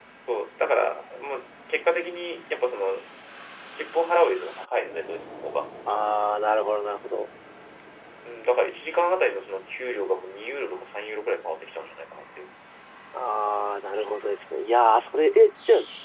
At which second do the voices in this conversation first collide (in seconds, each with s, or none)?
none